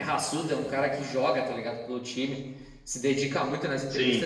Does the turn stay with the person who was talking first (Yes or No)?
Yes